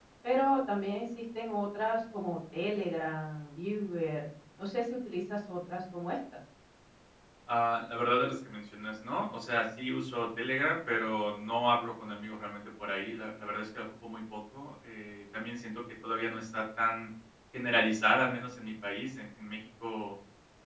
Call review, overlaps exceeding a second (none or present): none